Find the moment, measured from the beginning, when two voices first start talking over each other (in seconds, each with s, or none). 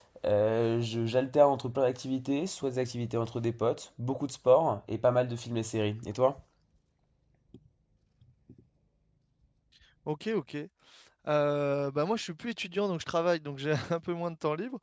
none